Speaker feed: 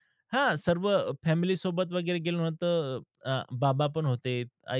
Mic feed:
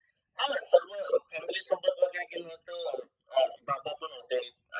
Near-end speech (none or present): none